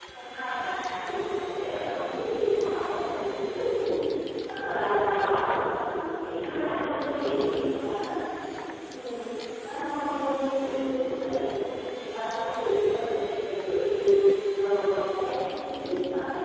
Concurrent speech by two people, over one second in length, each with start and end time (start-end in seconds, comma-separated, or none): 6.4-7.9